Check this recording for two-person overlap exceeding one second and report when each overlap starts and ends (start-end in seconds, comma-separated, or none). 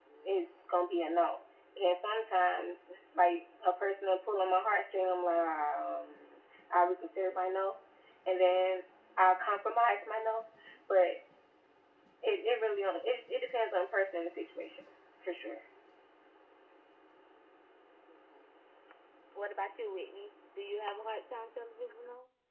none